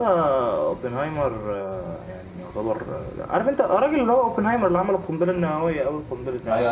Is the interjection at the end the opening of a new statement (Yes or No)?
Yes